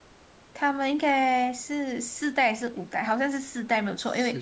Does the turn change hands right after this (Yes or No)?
No